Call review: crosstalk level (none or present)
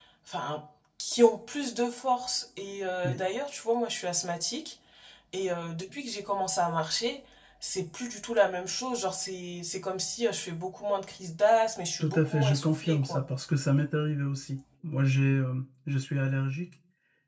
present